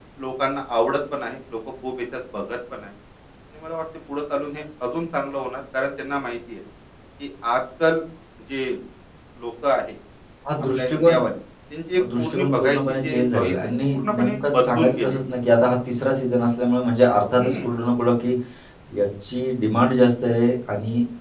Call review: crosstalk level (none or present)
present